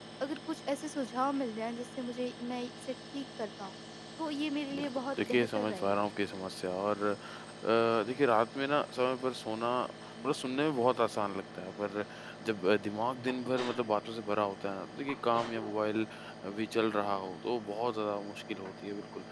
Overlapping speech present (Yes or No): Yes